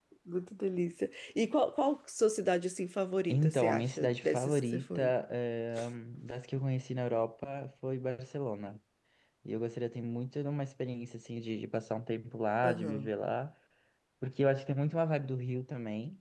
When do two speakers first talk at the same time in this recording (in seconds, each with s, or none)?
3.3 s